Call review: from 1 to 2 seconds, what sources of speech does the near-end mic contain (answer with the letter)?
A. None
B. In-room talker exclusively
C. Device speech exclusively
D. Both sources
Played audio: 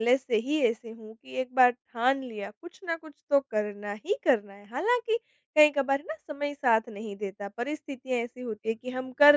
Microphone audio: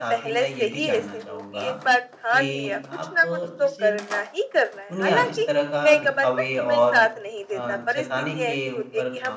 D